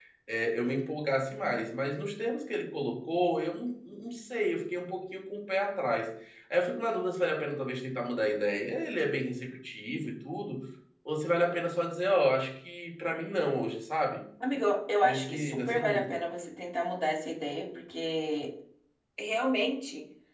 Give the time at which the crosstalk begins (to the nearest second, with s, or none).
15 s